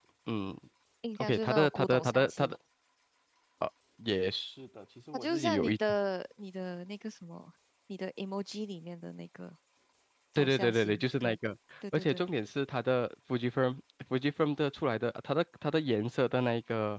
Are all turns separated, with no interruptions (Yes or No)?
No